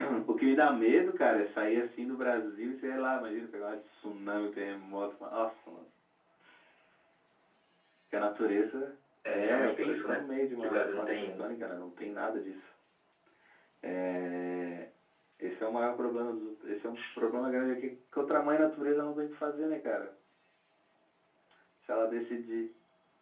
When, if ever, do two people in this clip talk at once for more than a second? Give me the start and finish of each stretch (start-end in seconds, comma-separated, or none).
9.2-11.4